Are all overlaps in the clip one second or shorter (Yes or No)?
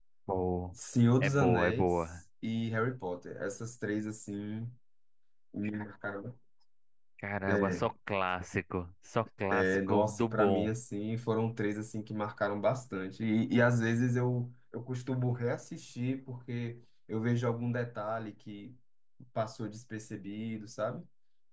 No